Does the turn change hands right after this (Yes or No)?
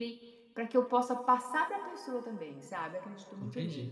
Yes